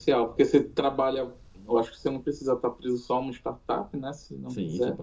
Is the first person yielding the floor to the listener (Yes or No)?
Yes